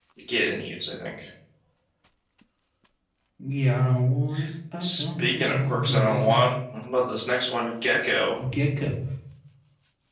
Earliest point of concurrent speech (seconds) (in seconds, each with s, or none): 4.8 s